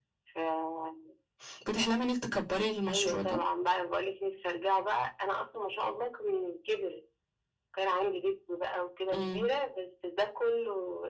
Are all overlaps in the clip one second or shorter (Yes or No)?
Yes